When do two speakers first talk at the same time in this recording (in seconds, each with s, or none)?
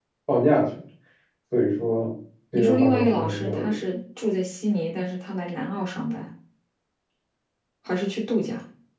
2.5 s